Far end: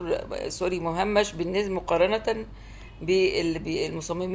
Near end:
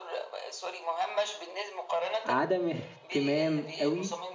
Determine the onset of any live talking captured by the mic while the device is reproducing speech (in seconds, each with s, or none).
2.2 s